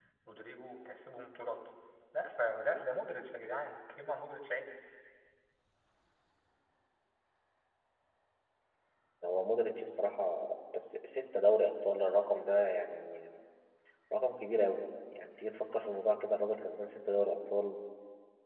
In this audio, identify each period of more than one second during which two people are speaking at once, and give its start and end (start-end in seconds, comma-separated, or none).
none